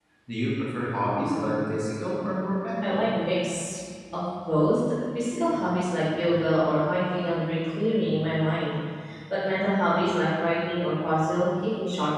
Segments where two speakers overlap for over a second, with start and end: none

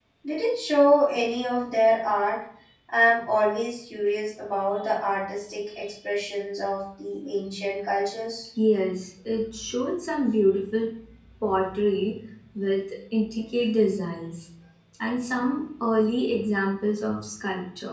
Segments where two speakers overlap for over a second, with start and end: none

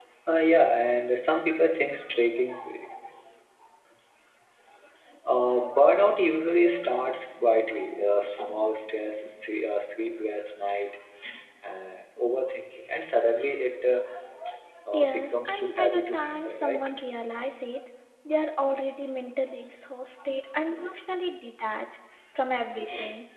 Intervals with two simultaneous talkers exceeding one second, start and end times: 14.9-16.8

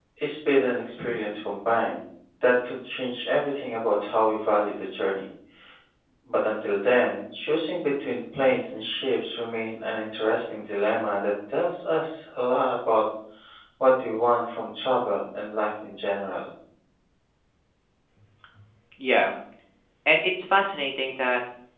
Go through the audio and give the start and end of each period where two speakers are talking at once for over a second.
none

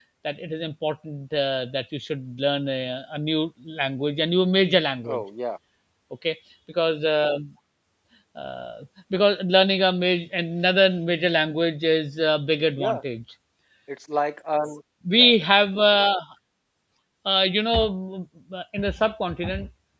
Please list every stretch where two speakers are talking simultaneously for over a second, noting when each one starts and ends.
none

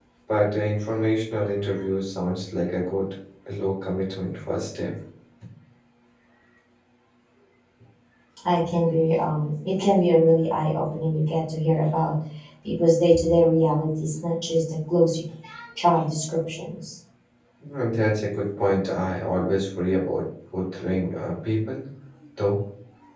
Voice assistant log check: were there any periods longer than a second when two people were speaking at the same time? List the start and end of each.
none

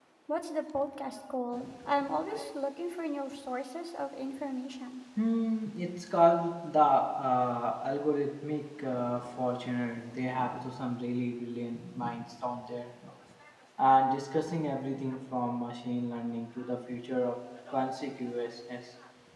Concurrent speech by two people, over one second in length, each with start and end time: none

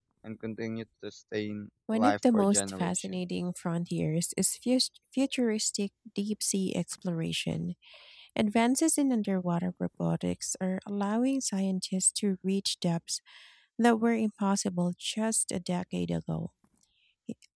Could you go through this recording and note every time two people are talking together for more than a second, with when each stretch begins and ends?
1.9-3.2

